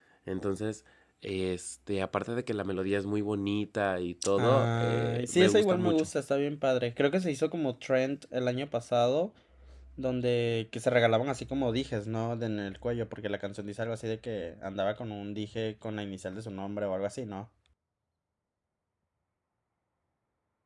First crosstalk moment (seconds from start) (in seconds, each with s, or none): 4.4 s